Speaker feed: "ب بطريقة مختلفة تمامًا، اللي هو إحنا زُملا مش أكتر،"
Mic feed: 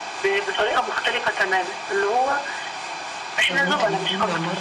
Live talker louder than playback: No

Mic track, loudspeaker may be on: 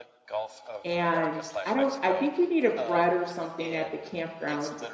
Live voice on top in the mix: Yes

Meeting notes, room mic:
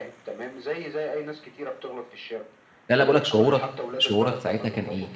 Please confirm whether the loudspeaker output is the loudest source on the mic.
No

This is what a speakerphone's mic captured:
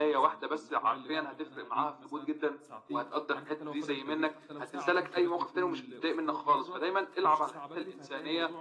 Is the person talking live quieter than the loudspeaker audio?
Yes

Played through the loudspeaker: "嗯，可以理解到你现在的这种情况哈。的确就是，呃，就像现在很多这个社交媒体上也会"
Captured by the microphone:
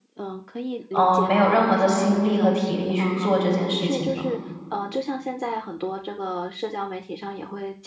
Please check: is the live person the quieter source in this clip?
No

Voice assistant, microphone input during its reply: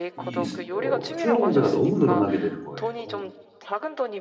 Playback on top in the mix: No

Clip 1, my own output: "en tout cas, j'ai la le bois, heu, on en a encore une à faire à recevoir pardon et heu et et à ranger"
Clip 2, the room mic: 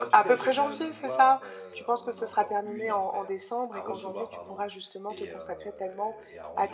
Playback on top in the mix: No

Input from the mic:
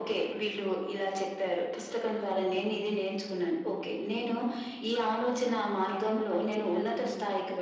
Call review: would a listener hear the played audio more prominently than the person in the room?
Yes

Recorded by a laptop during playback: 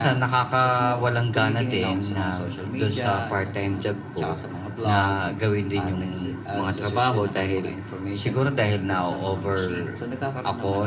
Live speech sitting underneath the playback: Yes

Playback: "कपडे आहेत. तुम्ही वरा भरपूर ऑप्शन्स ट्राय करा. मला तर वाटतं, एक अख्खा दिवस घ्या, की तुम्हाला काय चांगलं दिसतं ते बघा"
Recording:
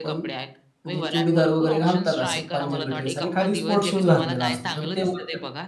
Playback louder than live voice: No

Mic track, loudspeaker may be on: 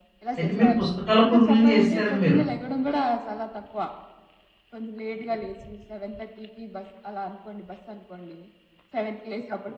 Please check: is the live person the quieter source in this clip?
No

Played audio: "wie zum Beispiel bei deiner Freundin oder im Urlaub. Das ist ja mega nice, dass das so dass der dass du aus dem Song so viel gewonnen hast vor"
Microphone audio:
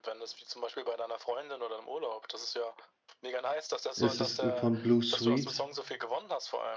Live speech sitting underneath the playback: No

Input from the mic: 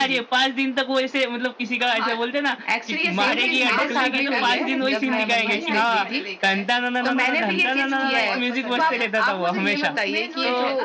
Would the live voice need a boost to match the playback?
Yes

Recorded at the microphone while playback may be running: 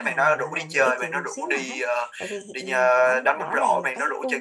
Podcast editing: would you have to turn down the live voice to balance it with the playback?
No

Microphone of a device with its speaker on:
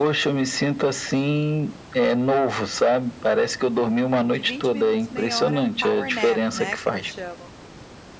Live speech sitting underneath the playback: Yes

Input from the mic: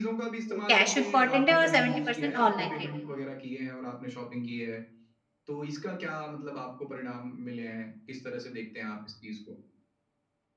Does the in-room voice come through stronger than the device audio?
Yes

